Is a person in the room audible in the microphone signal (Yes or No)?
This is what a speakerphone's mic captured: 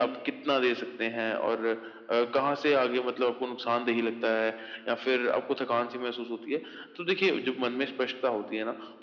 No